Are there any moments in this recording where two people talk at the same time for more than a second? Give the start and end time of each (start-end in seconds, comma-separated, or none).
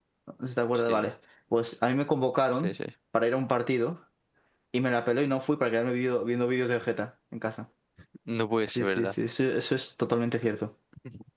none